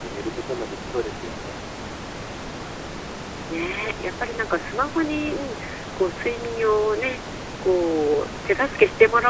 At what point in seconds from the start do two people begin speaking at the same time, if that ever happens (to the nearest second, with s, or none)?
none